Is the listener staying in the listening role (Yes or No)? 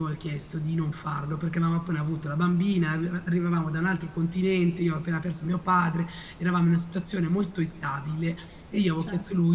Yes